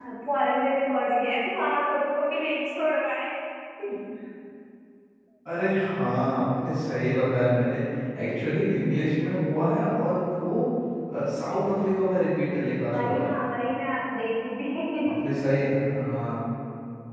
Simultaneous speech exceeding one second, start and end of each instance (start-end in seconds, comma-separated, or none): none